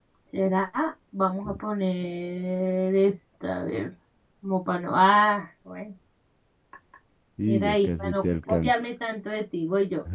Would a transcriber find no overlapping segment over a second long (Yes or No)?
No